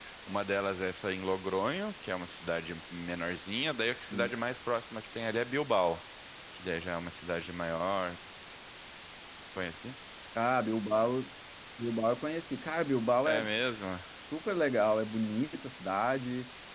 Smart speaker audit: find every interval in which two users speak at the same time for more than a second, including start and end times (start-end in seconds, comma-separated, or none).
none